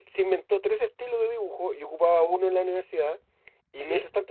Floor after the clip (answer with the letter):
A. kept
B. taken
A